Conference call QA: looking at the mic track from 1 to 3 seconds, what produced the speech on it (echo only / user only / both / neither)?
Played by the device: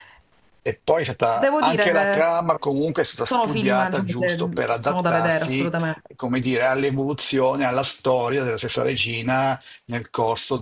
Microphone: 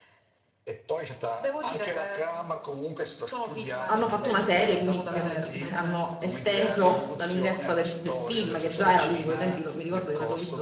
echo only